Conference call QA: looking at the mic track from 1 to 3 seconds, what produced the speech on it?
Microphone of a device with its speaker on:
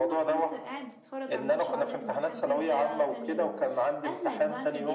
both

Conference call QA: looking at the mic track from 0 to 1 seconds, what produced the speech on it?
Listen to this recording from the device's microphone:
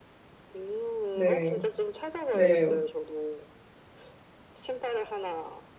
echo only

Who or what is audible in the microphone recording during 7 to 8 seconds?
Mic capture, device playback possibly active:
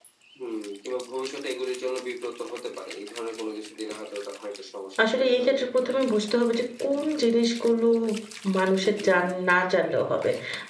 user only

